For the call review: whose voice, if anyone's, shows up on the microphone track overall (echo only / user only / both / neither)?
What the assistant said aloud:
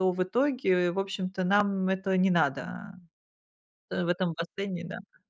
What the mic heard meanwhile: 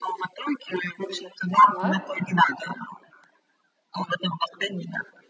both